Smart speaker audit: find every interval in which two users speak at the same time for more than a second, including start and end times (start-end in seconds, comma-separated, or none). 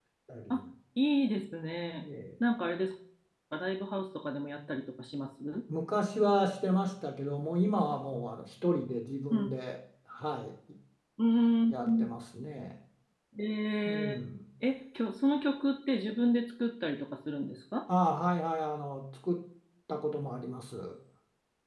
none